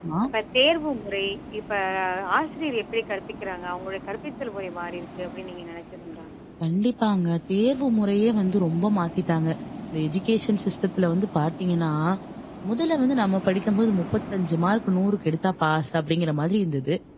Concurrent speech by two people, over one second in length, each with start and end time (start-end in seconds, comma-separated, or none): none